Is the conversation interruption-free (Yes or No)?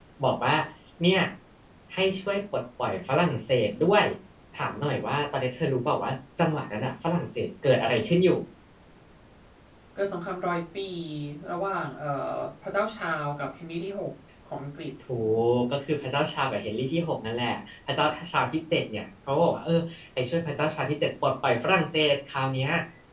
Yes